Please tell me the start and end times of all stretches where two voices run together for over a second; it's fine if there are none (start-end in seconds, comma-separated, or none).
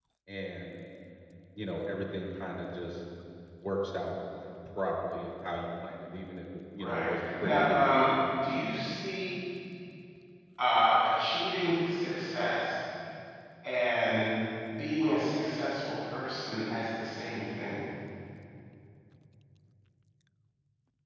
6.8-8.1